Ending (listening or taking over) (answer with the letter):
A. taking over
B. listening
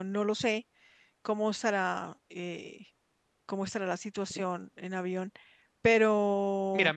A